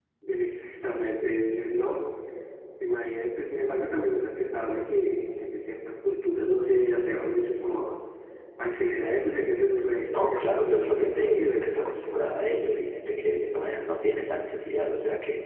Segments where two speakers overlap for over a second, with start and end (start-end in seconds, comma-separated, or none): 10.1-12.0